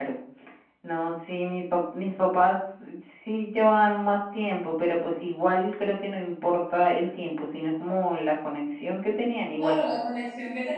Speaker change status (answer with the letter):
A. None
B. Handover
B